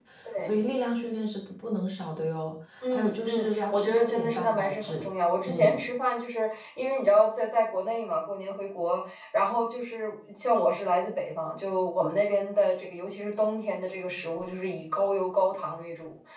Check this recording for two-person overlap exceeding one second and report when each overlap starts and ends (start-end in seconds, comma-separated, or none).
2.9-5.0